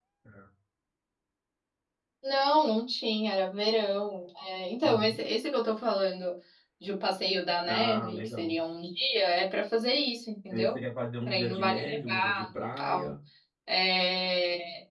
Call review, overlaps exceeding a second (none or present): present